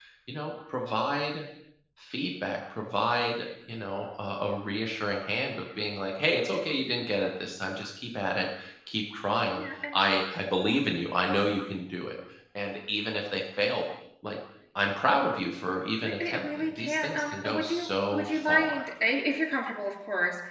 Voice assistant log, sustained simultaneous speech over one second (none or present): present